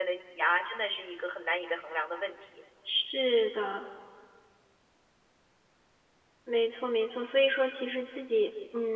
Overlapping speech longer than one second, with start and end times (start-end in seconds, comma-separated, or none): none